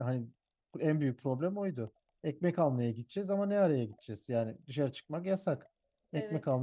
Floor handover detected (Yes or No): No